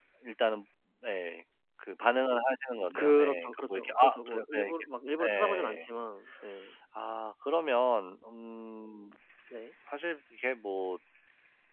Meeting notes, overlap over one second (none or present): present